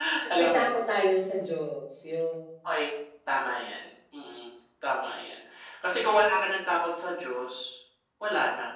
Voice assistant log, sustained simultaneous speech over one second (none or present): none